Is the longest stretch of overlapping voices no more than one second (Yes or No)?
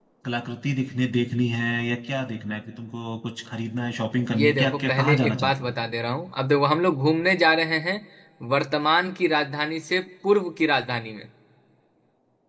No